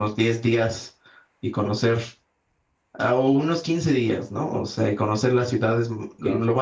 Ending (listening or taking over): listening